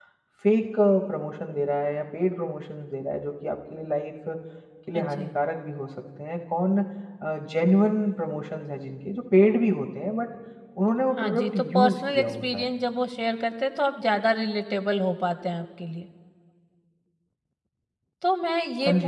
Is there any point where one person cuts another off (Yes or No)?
Yes